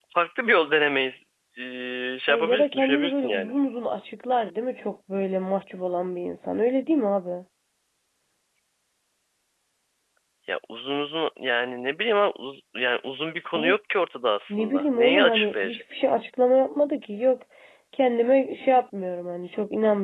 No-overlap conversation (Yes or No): No